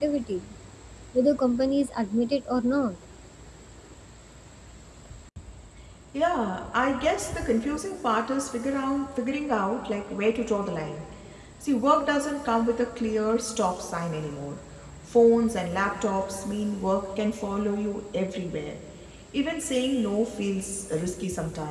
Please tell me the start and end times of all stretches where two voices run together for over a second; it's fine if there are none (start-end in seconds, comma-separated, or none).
none